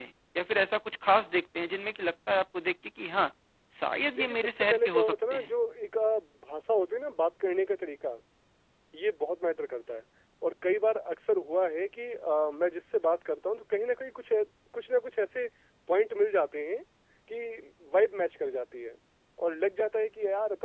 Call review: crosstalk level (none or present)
present